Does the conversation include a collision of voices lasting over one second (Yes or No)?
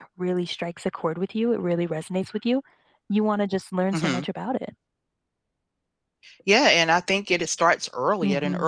No